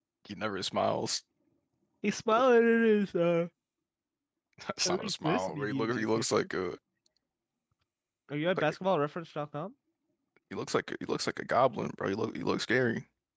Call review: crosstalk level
present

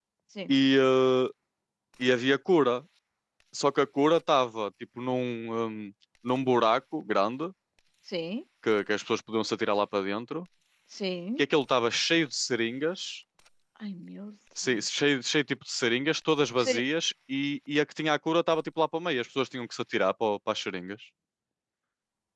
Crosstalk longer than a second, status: none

